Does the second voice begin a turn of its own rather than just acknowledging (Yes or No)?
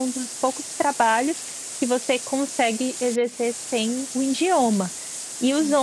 No